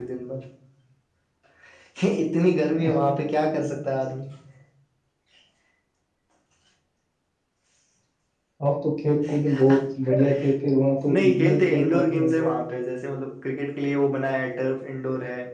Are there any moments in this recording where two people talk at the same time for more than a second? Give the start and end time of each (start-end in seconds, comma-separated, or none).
11.1-12.5